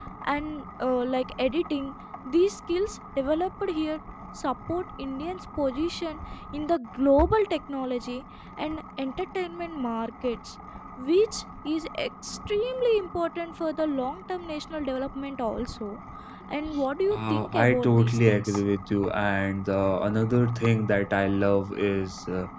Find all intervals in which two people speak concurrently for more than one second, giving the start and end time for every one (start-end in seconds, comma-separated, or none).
17.1-18.6